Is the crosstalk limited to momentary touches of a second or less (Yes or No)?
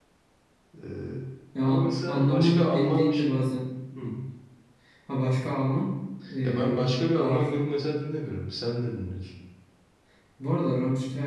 No